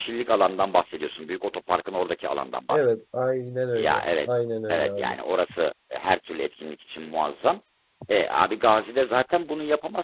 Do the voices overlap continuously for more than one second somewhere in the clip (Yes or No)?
No